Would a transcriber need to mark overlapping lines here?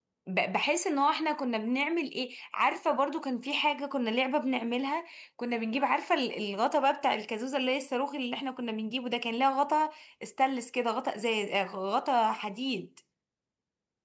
No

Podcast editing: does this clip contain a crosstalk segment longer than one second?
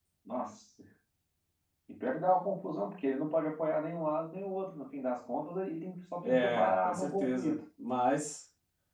Yes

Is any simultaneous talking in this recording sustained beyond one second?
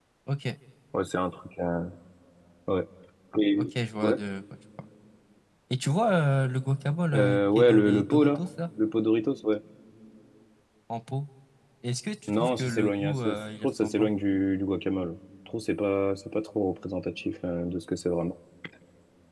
Yes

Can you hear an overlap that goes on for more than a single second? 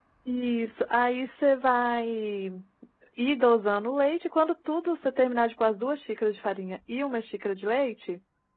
No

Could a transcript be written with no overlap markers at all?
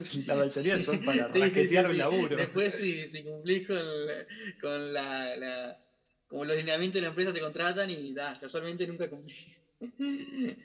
No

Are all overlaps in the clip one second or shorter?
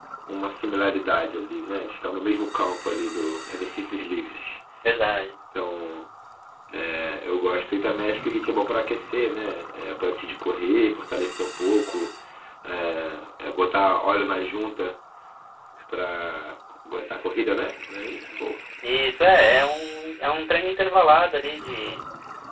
Yes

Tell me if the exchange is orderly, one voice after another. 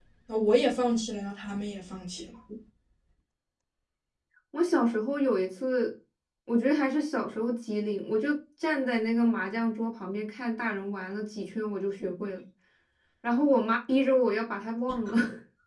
Yes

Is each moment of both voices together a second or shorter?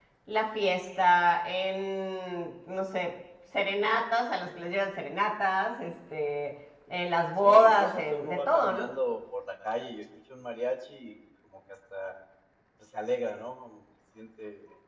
No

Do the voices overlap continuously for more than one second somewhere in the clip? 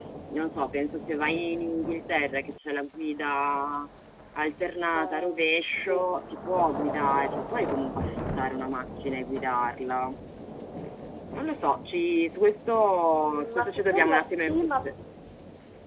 Yes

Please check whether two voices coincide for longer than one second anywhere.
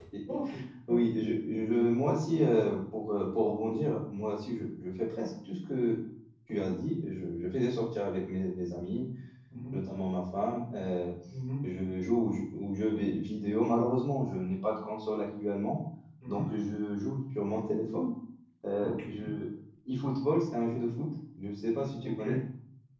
No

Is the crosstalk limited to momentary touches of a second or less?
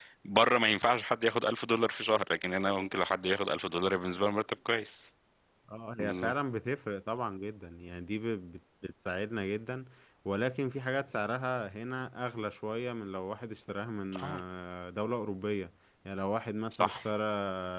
Yes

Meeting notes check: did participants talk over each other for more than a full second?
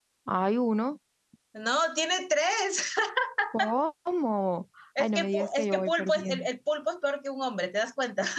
Yes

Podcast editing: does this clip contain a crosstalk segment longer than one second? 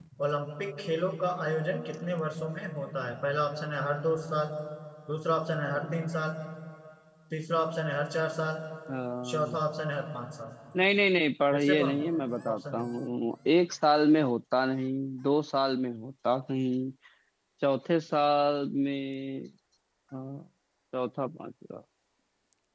No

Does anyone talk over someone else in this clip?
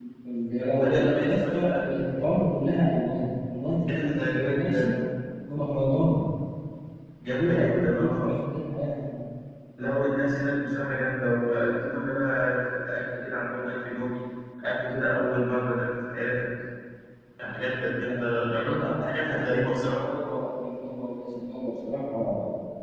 Yes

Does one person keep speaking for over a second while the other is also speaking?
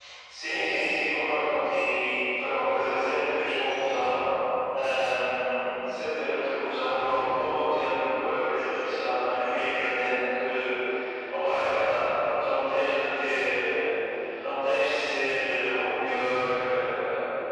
No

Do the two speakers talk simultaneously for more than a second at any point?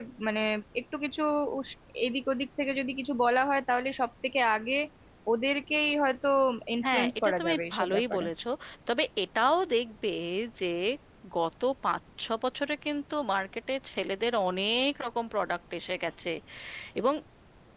Yes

